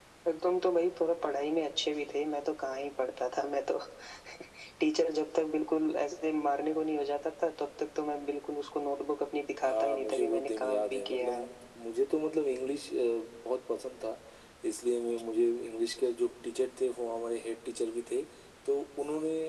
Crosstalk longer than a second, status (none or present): present